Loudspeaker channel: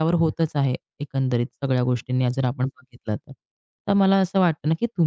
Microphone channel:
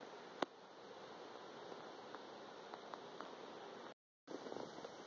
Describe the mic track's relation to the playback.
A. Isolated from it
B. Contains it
A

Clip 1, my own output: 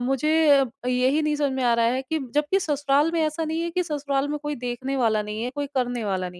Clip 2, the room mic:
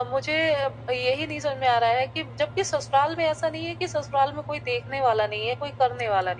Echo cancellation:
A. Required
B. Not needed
A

